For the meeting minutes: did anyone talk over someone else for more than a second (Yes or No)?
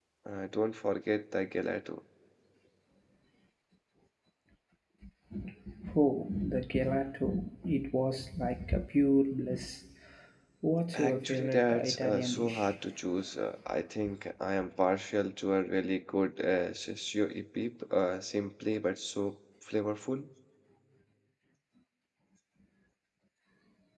Yes